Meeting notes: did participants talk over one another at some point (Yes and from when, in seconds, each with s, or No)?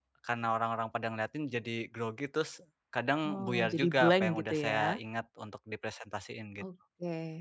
Yes, from 3.2 s